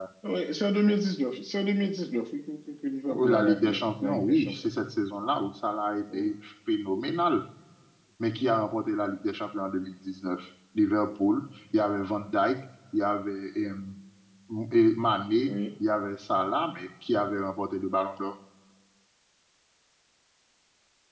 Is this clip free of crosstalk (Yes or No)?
No